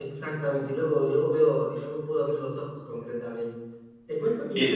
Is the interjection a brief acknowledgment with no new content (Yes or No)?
Yes